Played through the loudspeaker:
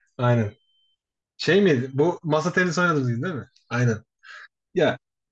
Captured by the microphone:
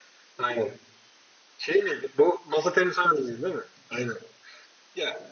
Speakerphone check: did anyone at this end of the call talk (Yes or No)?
No